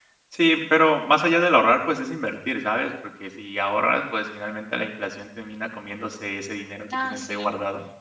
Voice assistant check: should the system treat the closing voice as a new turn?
Yes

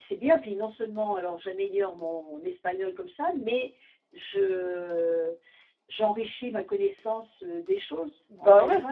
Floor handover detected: Yes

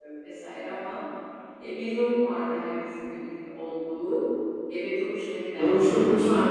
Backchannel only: No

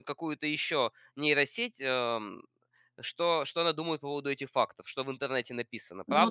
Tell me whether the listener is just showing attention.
No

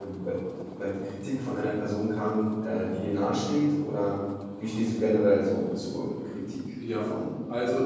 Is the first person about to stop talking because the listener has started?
Yes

